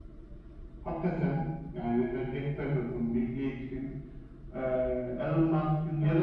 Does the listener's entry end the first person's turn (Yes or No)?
No